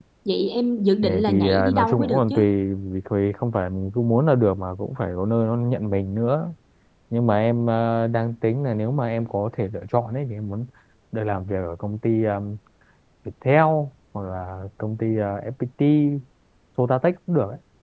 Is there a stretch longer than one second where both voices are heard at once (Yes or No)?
Yes